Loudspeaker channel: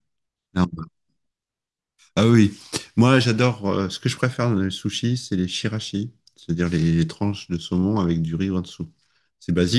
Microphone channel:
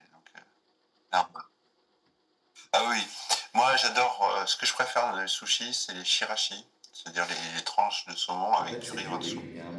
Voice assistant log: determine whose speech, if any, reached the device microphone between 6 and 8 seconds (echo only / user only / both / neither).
echo only